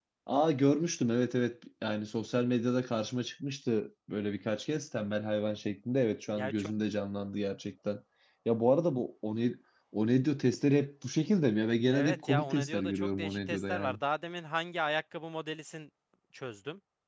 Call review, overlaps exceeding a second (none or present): present